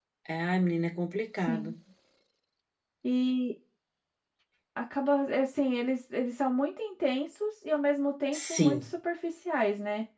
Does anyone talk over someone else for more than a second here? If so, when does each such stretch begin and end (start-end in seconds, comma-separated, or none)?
none